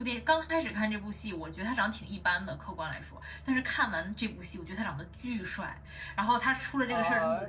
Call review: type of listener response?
taking over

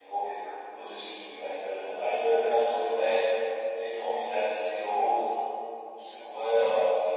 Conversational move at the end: listening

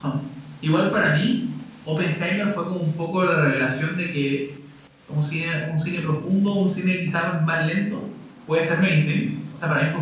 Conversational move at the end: listening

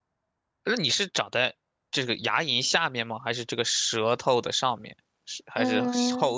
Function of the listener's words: taking over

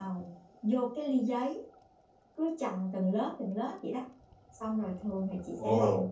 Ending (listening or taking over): listening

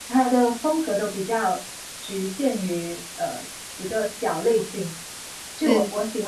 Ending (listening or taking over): listening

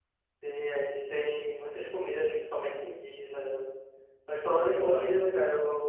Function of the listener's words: listening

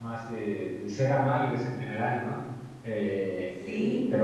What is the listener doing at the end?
listening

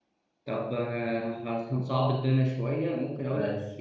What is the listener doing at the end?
listening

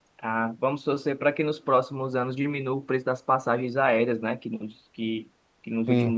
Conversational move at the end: listening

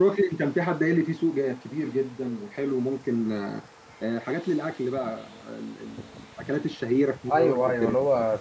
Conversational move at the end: taking over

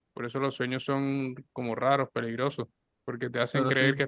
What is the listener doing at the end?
listening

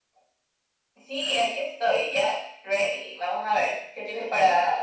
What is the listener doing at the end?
taking over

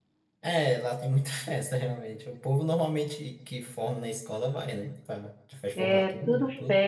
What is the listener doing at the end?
taking over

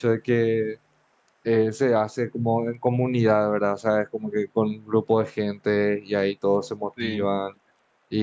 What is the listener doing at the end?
listening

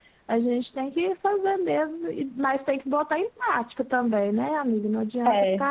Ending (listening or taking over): listening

